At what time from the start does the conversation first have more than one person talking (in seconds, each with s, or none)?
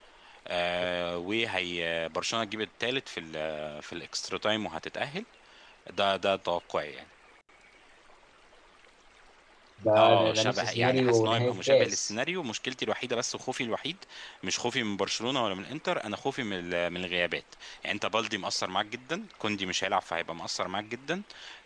10.0 s